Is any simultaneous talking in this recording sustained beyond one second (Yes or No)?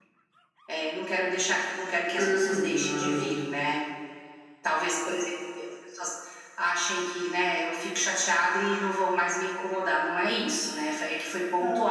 Yes